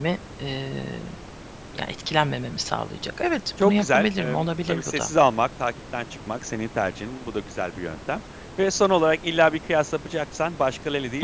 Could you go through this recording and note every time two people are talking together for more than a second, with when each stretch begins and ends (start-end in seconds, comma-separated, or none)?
3.6-5.1